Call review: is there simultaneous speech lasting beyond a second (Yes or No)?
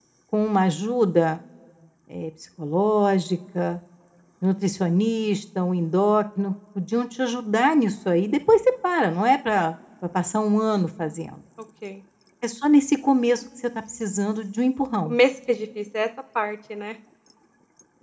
No